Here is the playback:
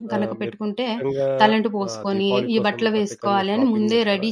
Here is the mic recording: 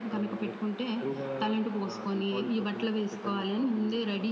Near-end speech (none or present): none